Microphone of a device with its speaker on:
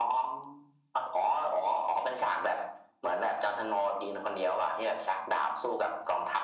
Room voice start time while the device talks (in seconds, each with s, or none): none